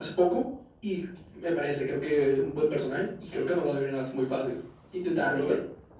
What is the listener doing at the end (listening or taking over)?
taking over